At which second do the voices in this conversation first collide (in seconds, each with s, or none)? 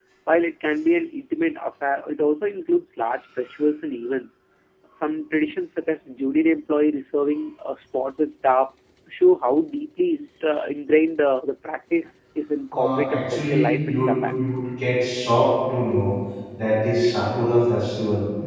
12.7 s